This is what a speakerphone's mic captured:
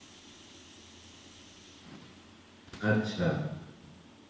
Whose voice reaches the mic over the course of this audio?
user only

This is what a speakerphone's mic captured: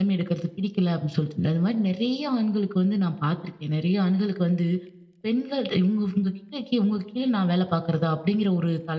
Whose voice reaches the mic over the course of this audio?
user only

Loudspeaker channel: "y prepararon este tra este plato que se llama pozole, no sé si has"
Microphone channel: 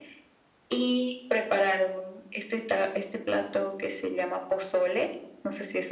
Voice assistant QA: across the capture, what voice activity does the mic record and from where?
echo only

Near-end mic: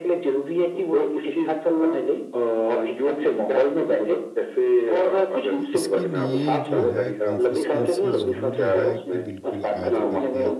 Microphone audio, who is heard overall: both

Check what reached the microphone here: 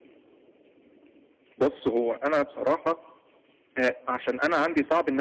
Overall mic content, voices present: echo only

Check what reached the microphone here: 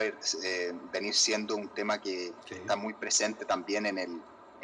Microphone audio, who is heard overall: both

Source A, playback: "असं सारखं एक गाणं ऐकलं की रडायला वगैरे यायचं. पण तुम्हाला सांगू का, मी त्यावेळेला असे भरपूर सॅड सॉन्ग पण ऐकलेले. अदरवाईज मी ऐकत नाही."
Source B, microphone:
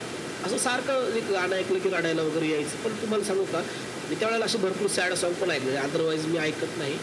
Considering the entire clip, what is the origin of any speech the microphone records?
echo only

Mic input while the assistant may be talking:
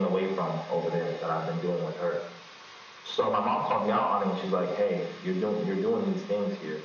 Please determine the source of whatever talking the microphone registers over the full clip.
echo only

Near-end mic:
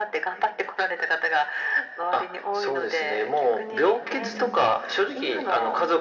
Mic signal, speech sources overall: both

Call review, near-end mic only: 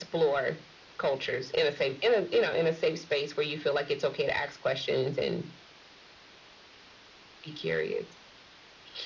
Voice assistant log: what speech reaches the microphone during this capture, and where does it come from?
echo only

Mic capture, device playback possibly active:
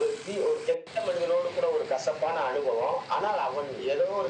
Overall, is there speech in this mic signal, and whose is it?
echo only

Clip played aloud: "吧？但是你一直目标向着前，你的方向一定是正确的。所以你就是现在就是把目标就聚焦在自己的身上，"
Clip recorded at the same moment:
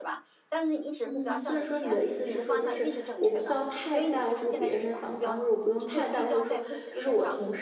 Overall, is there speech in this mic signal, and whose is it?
both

